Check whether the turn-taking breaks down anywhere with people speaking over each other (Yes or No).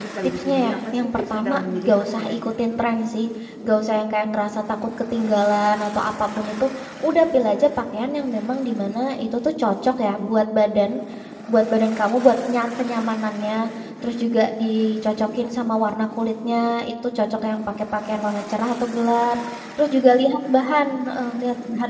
Yes